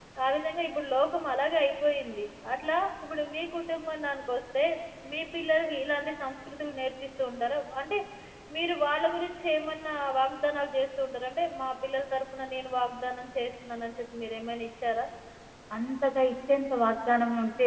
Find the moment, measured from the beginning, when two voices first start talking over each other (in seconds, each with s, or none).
none